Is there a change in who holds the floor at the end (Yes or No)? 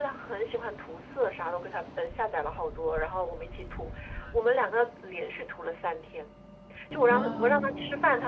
No